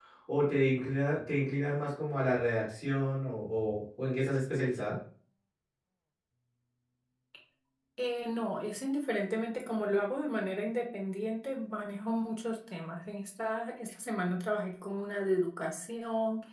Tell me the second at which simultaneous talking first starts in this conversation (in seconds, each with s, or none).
none